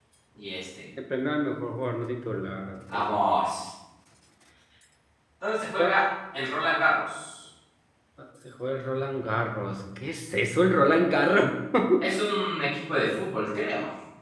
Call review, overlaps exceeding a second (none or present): none